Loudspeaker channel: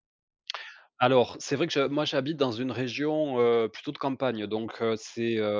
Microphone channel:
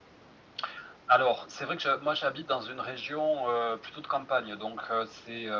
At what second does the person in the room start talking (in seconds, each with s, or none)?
none